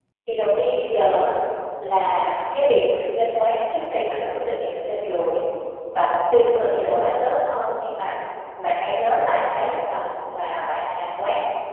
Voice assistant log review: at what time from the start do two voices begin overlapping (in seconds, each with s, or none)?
none